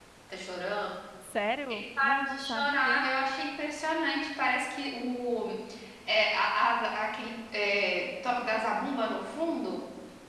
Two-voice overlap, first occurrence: 2 s

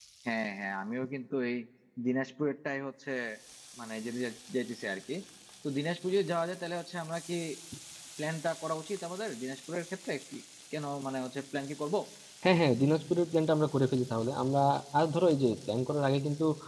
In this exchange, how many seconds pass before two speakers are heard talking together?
none

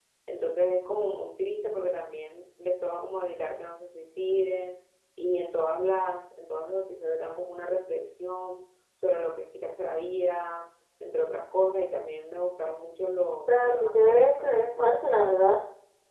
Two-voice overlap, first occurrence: 13 s

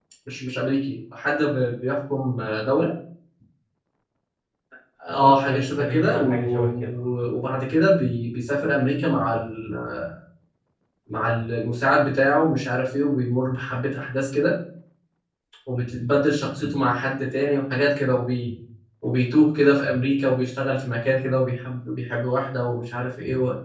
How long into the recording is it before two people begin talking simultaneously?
5 s

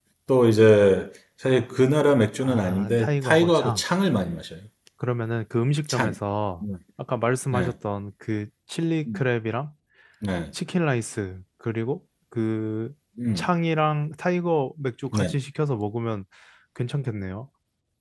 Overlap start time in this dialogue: 2 s

